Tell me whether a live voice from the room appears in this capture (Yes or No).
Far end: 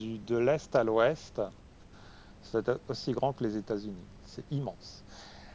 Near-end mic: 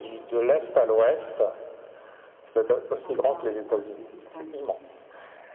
Yes